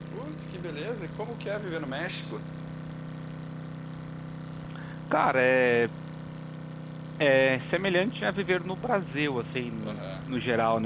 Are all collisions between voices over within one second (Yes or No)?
Yes